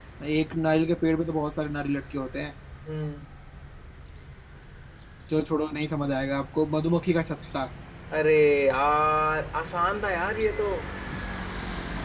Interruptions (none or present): none